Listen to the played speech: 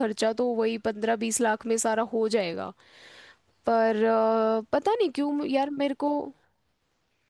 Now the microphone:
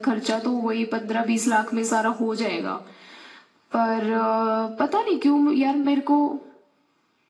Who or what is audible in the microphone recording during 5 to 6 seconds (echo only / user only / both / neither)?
echo only